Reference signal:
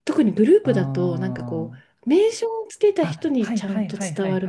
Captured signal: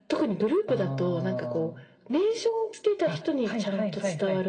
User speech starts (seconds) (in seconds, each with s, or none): none